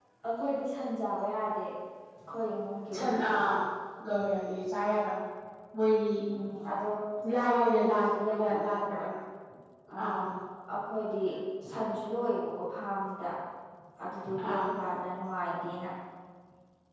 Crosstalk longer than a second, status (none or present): present